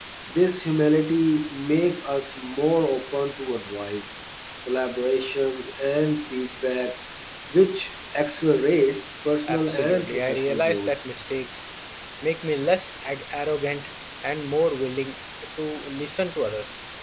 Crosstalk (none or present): present